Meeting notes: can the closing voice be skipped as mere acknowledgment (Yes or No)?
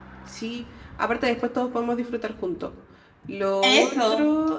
Yes